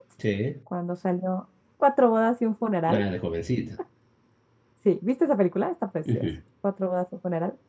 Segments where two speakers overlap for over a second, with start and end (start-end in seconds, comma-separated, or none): none